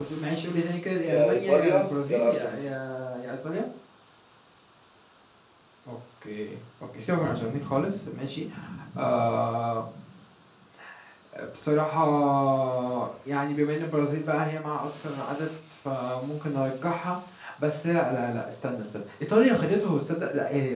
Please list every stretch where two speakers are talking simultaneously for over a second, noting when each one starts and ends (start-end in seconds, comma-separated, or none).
1.1-2.6